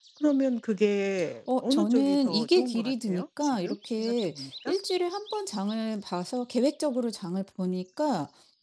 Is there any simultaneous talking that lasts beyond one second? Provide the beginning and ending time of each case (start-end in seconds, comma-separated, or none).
1.6-4.8